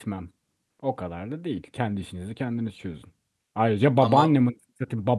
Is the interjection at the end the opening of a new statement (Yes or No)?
No